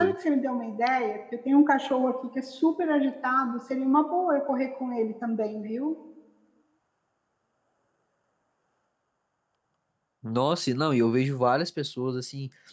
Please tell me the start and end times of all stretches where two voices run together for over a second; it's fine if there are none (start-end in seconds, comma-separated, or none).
none